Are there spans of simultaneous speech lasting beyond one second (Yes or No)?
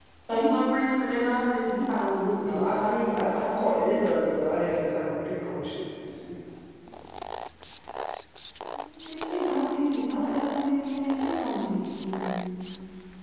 Yes